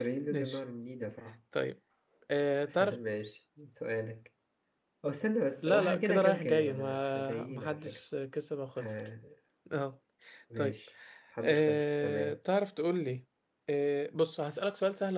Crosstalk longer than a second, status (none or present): present